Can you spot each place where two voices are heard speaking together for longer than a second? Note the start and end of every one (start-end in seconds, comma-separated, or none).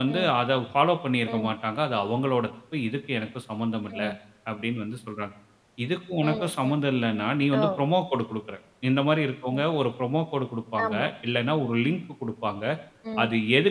none